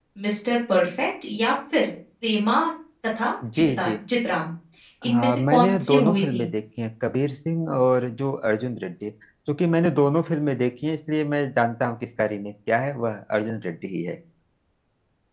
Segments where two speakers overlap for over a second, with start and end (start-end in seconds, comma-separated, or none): 5.0-6.4